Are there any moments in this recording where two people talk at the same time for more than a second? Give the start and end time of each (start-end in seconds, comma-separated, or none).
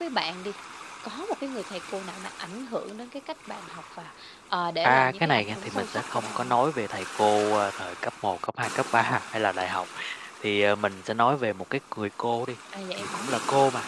4.8-6.5